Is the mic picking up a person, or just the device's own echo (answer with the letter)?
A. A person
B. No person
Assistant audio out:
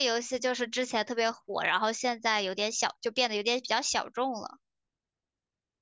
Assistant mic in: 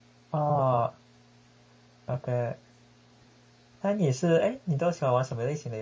A